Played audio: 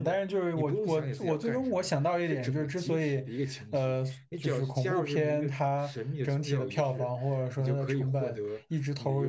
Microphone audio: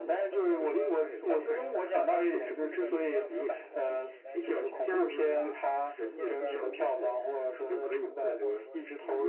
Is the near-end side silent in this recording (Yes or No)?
No